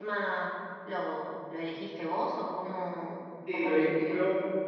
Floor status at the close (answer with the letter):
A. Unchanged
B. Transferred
B